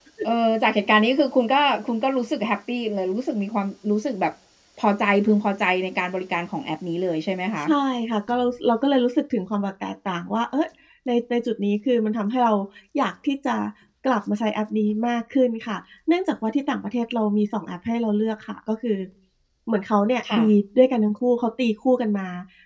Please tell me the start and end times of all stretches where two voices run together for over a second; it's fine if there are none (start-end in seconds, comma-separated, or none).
none